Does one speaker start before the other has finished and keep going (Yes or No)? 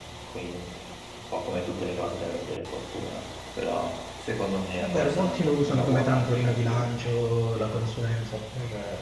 Yes